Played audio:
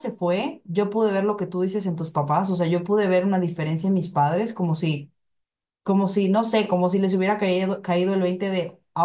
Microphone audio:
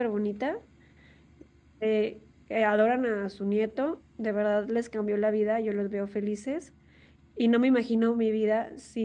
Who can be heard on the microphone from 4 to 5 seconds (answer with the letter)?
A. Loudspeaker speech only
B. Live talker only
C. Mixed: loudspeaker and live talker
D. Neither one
B